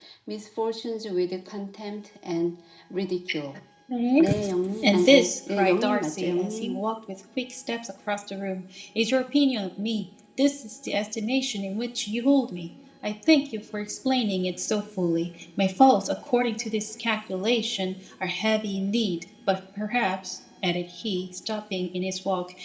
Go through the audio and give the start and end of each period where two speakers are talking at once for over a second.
4.8-6.8

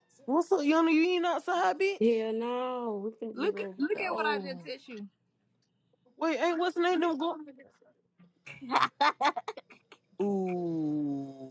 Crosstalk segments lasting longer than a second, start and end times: 3.3-4.6

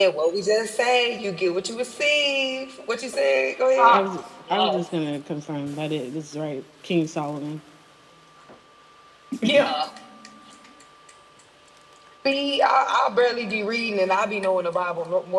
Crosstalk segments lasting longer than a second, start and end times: none

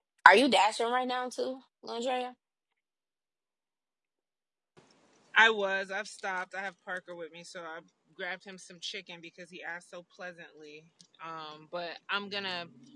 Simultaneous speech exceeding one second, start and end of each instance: none

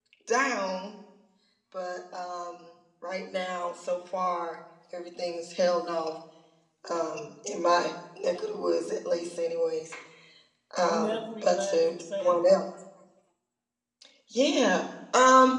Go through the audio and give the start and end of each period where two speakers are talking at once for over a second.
10.8-12.4

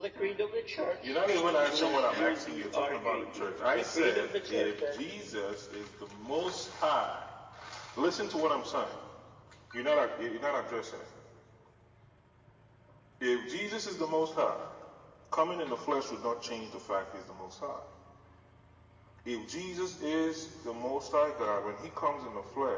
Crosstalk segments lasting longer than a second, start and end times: 1.6-4.9

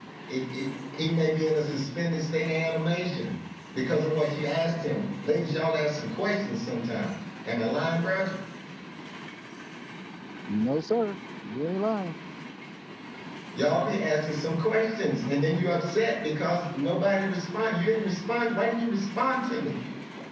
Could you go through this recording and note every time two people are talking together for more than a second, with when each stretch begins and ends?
none

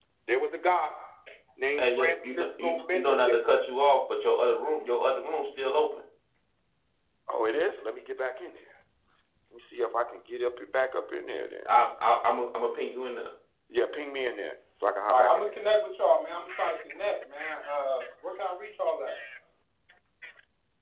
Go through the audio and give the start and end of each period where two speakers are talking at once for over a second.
1.8-3.2

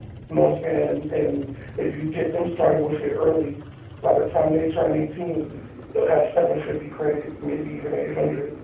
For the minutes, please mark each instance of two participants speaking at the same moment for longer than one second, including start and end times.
none

